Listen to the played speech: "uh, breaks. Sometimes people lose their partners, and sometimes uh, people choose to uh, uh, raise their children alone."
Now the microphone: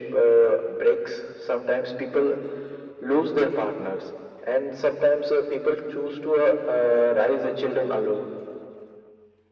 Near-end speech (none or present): none